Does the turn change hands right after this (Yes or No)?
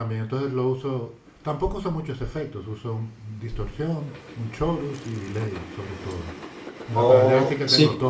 Yes